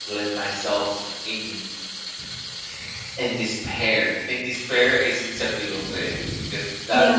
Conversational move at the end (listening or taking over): listening